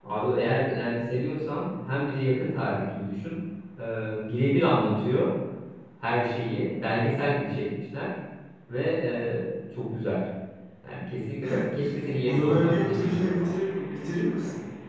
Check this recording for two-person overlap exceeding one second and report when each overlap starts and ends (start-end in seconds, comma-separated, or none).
12.3-13.5